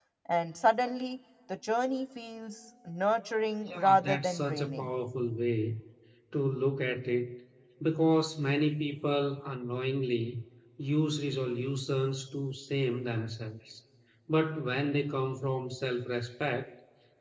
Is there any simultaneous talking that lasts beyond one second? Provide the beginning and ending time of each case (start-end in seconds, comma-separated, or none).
3.7-4.9